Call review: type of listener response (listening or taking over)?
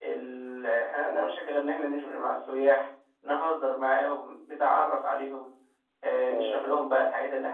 listening